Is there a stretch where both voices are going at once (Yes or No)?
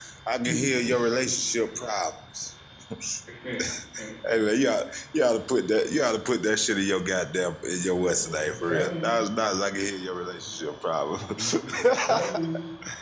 Yes